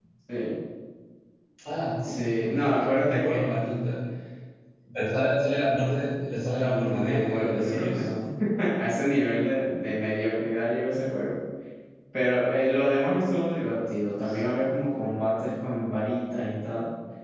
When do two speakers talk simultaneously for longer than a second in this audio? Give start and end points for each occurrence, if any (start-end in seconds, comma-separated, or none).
2.0-3.5, 6.5-8.1